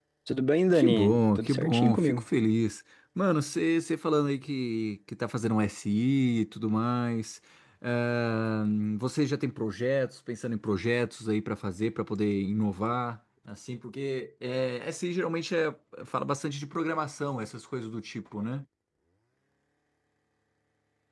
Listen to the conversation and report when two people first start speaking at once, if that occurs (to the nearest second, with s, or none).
1 s